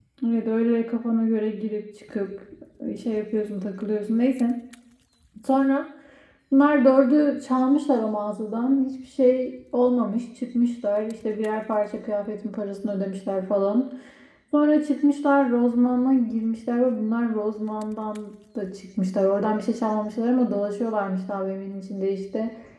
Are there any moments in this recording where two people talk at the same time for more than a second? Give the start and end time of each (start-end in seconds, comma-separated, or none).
none